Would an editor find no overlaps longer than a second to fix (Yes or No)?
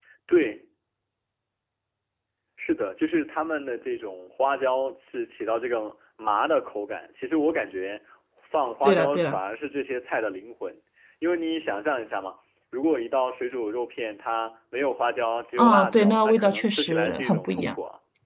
No